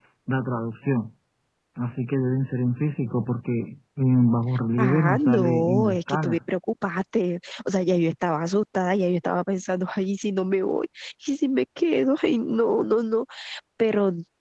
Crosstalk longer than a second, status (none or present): present